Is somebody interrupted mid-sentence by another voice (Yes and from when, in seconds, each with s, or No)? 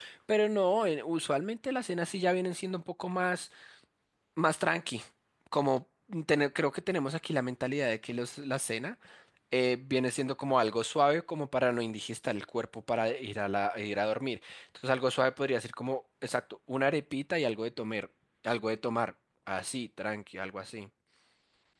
No